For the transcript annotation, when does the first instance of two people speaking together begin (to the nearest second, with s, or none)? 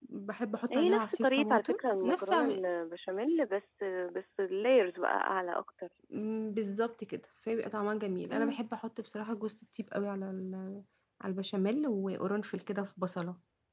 1 s